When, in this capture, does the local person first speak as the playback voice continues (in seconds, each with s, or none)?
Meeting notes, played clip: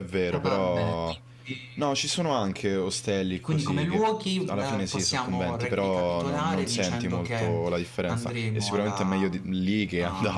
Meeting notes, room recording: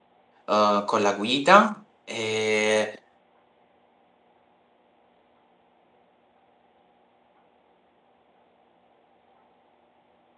0.5 s